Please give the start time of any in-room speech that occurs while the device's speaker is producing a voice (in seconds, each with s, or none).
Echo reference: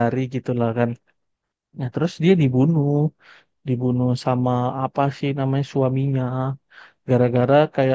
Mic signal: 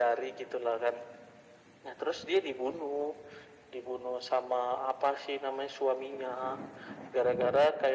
none